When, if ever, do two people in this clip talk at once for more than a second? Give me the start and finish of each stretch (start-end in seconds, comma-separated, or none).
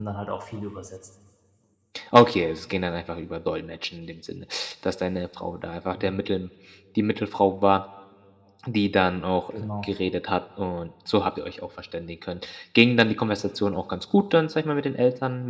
none